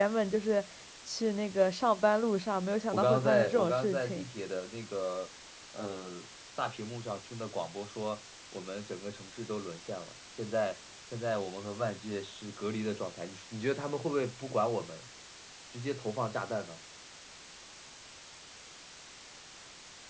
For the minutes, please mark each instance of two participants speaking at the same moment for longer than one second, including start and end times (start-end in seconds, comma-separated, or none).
2.9-4.2